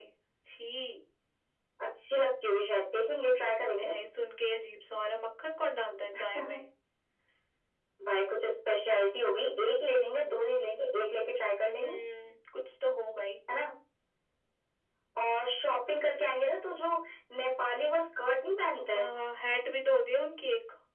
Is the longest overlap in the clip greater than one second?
No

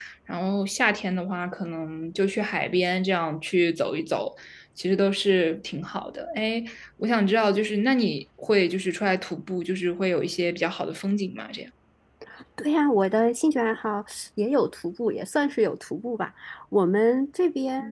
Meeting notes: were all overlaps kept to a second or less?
Yes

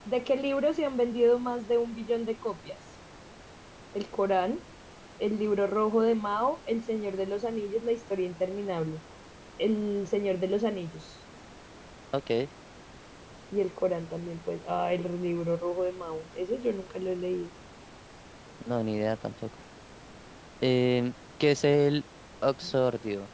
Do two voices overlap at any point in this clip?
No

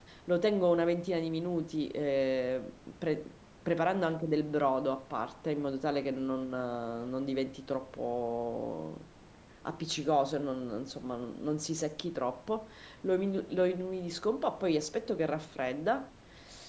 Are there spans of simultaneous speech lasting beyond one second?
No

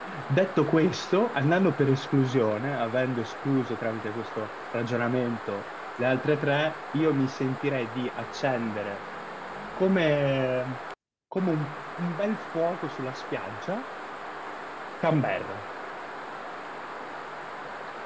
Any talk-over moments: No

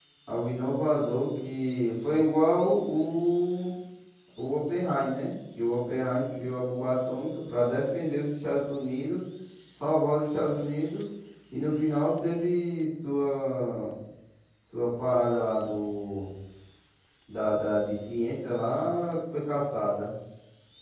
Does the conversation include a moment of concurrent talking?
No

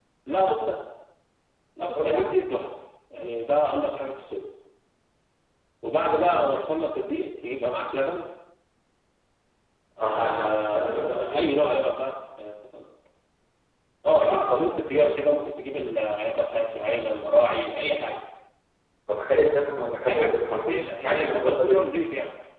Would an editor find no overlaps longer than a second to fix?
No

